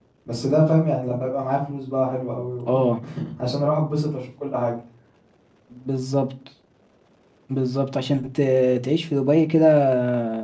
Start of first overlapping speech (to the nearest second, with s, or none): none